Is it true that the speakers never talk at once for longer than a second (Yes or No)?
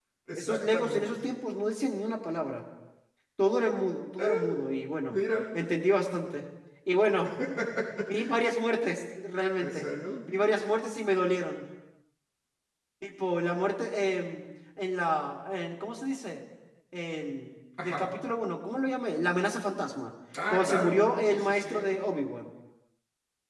No